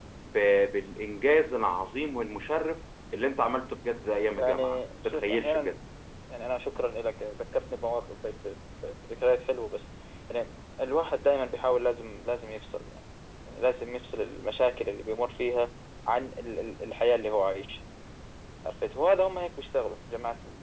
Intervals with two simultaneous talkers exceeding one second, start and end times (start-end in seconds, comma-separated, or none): 4.4-5.8